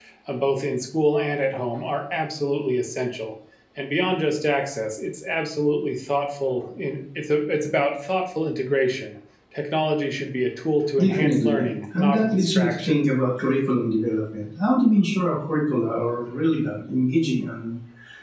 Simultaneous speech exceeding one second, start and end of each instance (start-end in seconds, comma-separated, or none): 11.0-13.0